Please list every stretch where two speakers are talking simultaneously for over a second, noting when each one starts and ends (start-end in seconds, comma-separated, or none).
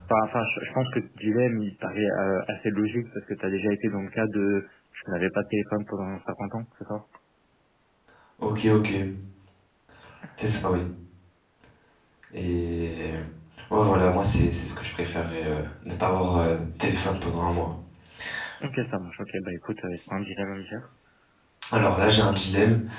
none